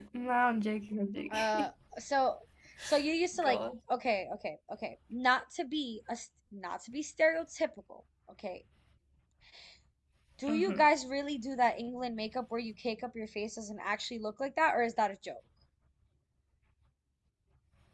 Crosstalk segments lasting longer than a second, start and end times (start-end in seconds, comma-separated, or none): none